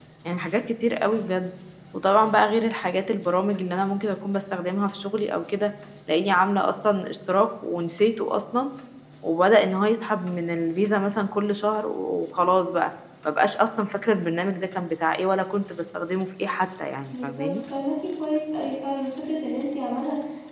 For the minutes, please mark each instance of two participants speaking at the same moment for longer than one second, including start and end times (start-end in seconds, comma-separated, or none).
none